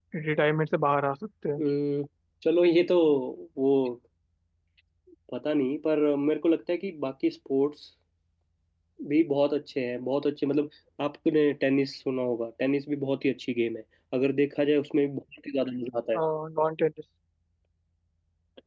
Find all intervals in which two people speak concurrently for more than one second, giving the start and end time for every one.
none

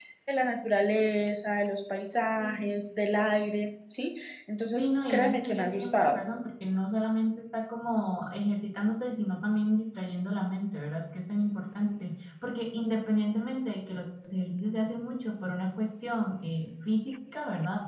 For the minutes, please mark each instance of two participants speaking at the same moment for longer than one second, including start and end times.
4.8-6.2

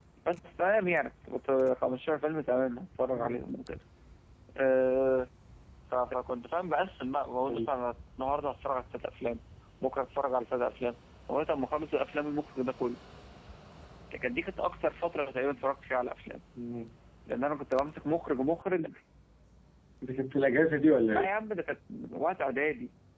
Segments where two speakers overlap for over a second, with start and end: none

